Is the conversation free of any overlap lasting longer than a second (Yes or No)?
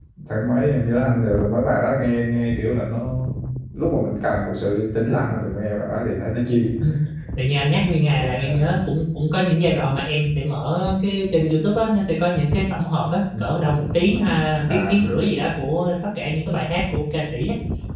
Yes